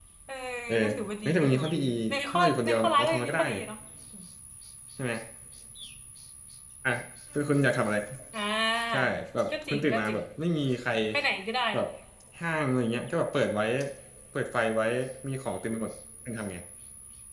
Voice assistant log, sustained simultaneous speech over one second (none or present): present